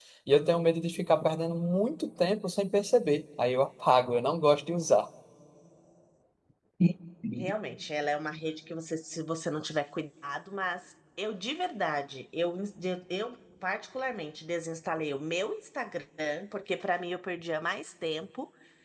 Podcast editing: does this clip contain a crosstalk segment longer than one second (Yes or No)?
No